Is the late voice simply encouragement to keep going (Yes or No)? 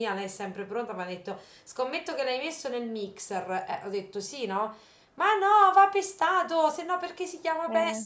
Yes